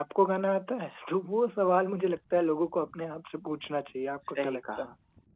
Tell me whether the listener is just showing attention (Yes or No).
No